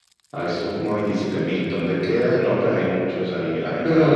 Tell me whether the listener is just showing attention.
No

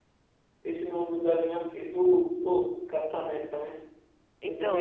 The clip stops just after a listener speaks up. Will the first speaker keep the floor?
No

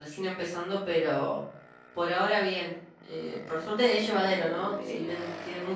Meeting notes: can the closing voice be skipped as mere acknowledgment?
Yes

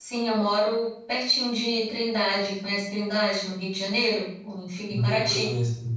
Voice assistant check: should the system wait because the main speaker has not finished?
No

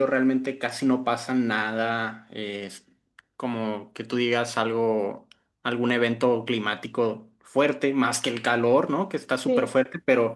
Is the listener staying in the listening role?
Yes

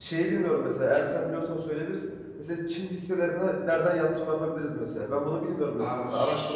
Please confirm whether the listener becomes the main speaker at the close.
Yes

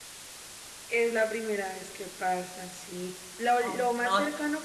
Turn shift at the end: No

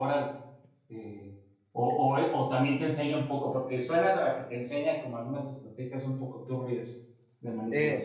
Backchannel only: No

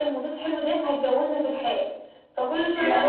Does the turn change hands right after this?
Yes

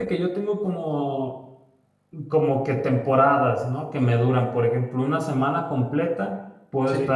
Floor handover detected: No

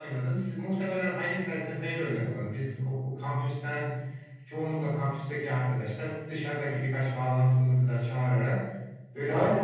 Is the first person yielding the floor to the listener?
Yes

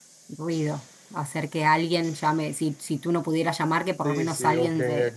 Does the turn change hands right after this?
Yes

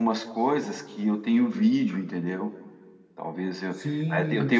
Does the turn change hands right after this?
Yes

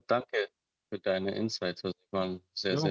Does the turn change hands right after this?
Yes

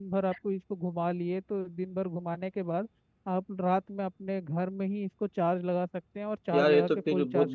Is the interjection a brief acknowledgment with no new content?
No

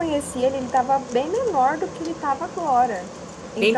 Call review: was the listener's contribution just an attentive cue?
Yes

